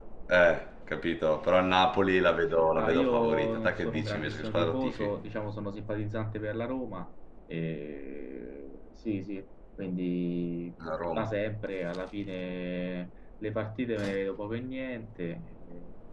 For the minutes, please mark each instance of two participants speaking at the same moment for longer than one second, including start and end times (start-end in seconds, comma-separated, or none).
2.8-5.2